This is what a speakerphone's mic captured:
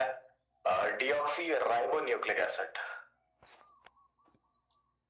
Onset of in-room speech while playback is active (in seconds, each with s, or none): none